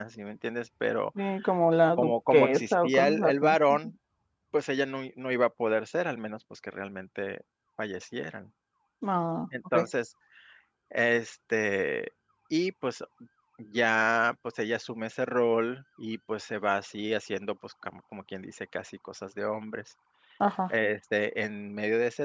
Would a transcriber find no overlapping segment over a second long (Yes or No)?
No